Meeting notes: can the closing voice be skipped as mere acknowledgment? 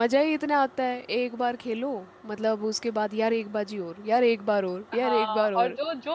No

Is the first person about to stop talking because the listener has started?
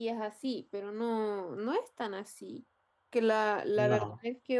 No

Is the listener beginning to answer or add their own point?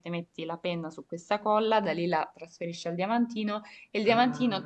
No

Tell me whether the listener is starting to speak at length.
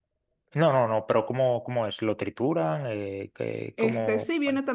Yes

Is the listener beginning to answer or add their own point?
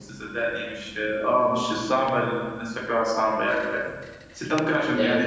No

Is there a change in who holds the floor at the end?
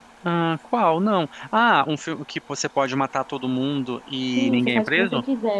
Yes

